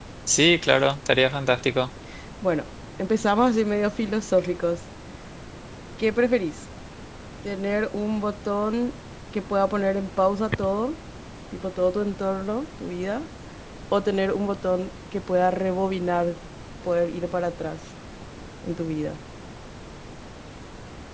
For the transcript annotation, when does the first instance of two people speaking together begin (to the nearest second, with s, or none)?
none